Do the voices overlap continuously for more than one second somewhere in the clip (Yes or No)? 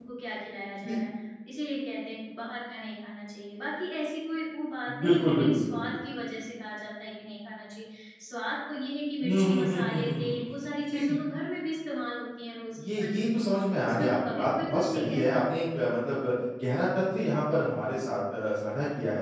Yes